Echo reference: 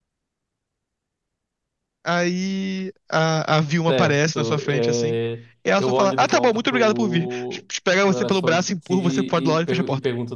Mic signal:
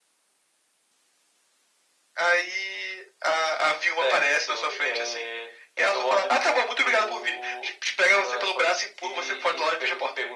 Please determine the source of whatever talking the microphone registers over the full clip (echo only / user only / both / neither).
echo only